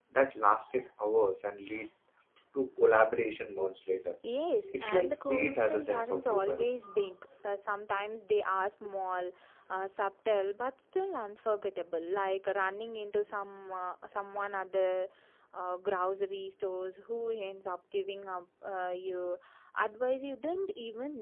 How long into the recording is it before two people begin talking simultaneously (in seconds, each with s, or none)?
4.8 s